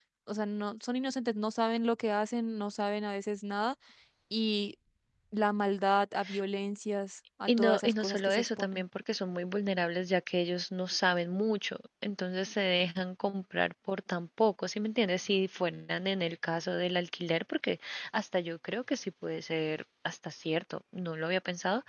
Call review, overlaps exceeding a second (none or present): present